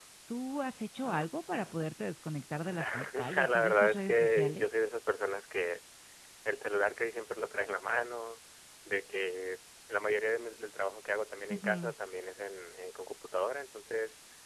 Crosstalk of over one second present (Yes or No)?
Yes